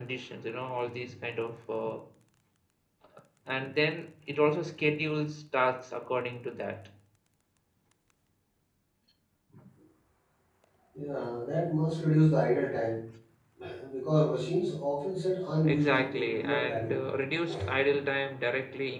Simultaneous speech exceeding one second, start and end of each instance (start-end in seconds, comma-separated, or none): 15.6-17.0